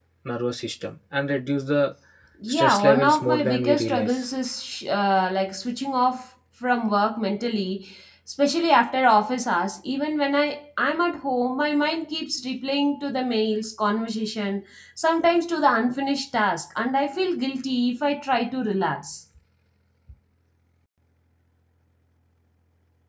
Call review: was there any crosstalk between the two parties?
Yes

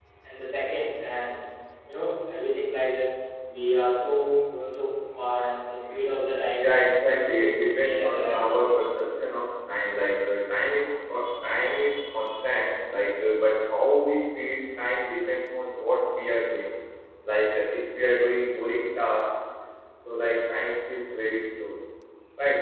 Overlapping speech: Yes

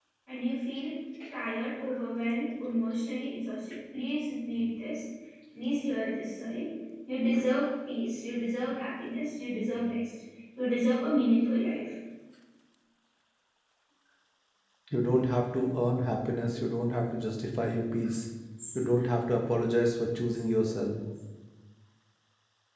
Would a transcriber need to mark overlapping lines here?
No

